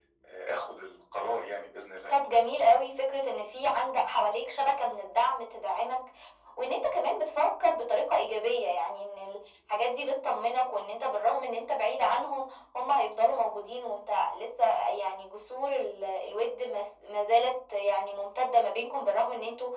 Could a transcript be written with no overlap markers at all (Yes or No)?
Yes